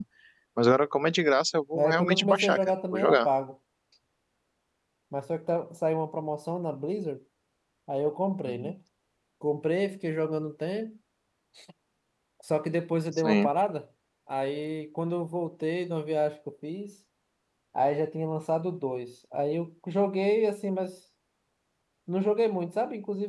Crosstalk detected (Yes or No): Yes